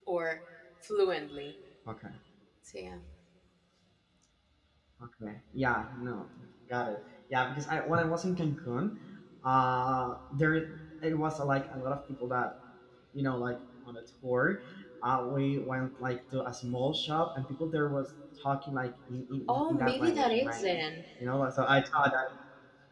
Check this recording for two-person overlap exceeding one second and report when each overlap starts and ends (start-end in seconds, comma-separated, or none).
19.5-20.8